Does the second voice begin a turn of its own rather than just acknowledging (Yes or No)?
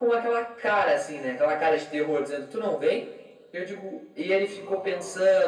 No